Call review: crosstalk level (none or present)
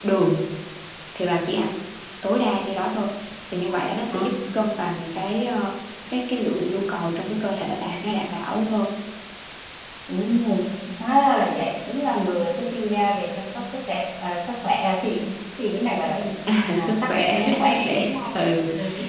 present